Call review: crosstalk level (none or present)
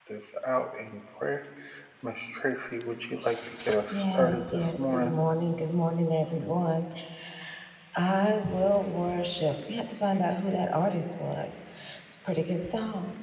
present